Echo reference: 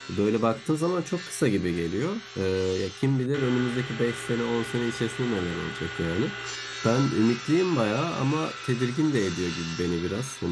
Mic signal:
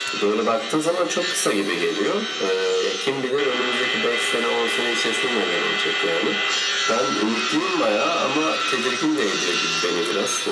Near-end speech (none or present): none